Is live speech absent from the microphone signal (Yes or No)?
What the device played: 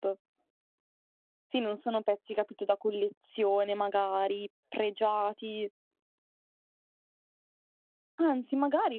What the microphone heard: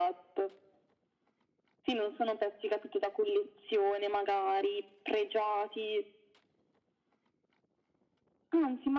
Yes